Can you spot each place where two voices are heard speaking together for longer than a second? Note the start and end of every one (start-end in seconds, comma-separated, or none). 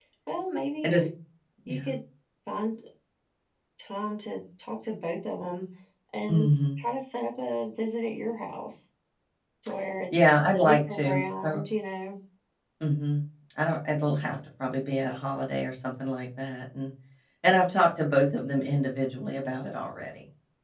10.2-11.6